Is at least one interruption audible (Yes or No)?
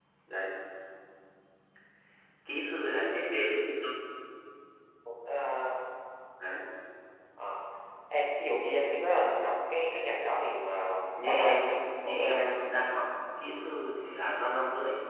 Yes